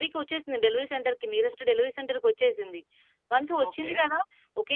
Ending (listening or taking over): listening